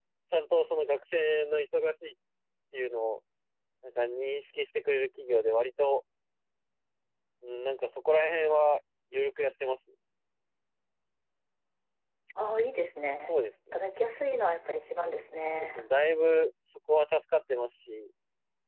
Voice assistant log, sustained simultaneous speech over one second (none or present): none